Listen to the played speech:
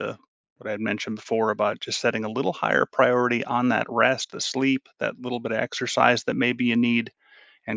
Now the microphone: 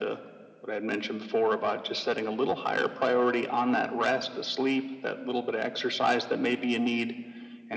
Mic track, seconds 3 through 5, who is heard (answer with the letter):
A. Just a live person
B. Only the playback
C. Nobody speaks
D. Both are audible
B